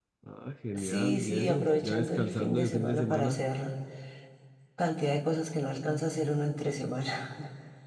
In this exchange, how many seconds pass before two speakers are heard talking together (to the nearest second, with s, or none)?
1 s